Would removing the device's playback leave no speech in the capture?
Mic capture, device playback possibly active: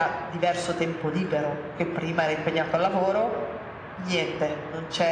Yes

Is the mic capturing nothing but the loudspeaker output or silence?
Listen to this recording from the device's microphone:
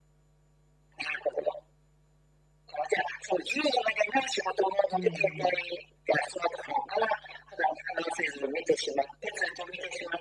No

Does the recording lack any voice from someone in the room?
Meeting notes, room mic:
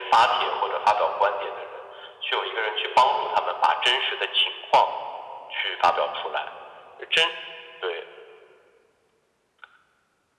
Yes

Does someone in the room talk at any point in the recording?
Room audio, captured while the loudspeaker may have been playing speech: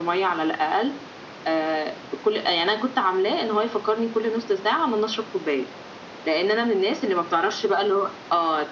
No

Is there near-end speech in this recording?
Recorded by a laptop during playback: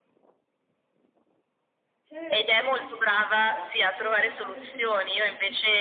Yes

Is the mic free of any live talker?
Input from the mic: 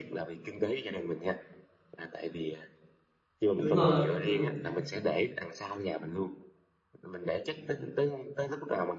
No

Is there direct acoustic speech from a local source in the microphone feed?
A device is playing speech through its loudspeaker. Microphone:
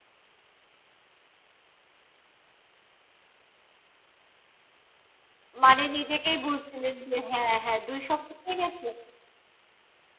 Yes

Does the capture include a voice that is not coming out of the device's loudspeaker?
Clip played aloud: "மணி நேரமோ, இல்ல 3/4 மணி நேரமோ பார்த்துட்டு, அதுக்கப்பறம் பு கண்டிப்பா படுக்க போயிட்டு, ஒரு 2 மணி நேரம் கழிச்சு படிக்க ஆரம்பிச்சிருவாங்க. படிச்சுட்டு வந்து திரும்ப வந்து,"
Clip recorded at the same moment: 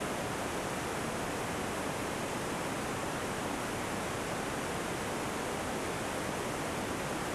No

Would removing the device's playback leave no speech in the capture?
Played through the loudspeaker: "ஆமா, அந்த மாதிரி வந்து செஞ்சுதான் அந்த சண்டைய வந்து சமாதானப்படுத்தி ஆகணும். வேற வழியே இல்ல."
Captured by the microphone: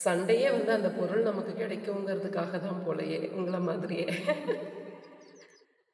No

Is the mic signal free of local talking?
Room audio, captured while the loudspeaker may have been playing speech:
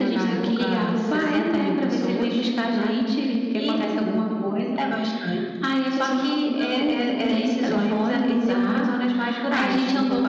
No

